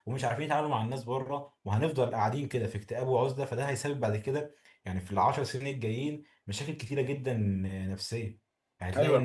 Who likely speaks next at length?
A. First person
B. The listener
A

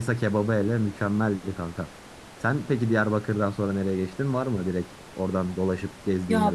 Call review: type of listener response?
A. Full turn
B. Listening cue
A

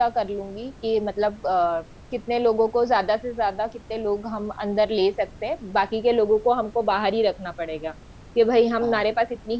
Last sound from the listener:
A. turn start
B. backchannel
B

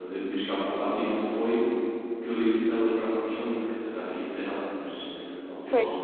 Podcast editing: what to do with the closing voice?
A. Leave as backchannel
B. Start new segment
A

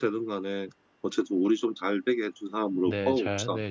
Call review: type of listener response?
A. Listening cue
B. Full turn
B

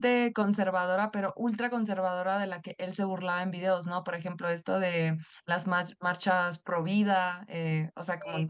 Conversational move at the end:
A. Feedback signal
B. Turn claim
A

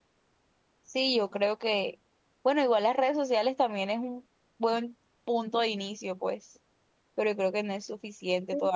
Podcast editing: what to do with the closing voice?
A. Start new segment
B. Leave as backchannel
A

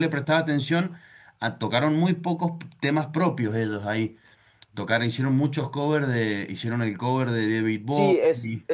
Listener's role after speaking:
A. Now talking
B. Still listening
A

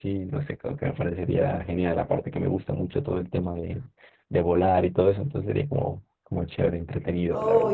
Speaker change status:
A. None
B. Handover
B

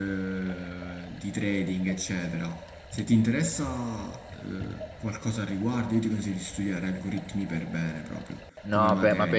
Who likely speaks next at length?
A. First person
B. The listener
B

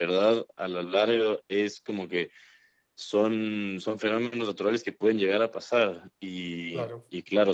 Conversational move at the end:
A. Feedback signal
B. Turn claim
A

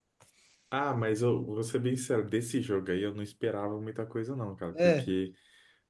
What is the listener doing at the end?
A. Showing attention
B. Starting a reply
A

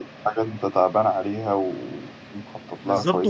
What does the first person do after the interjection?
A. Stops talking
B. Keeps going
A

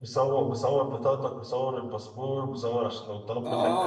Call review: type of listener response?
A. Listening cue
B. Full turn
B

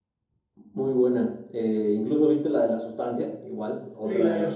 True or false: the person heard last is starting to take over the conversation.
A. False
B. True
B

